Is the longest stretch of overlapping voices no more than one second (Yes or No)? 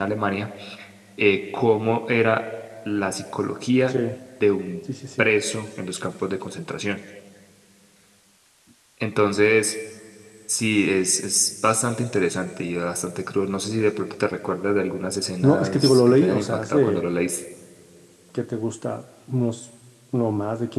No